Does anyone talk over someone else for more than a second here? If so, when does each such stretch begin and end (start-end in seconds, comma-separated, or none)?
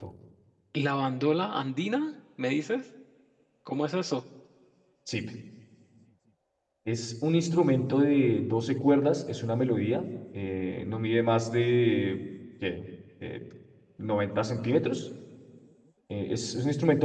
none